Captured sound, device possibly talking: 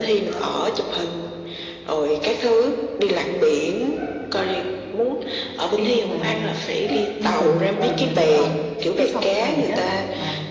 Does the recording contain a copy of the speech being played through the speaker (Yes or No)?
Yes